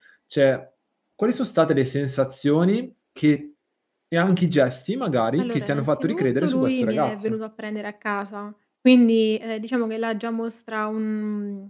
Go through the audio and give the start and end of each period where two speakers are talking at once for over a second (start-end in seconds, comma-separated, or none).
5.4-7.4